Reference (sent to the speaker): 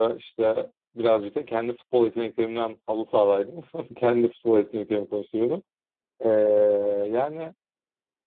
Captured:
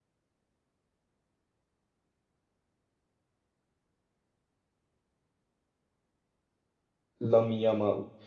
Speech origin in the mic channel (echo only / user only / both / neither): user only